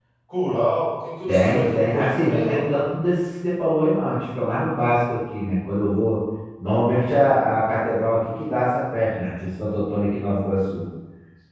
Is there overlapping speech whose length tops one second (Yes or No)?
Yes